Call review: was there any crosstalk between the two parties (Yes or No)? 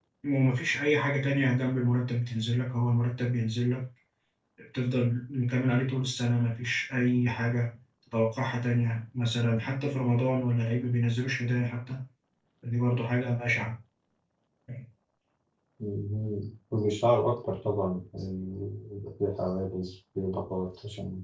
No